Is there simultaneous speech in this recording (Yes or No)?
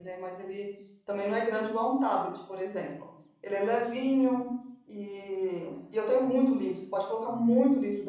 No